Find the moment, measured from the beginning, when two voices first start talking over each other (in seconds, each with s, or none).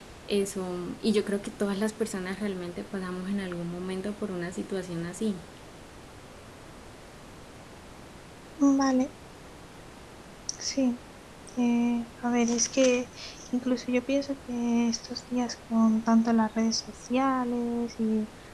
none